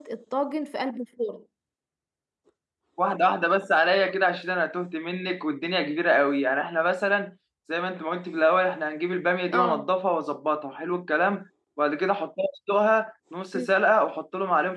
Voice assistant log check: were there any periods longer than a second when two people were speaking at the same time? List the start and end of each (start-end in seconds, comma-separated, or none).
none